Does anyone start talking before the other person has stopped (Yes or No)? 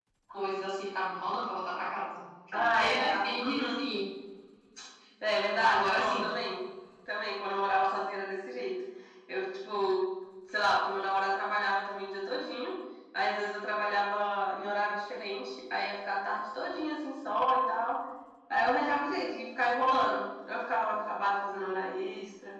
Yes